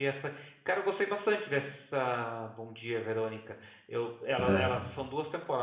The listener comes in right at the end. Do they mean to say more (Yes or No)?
No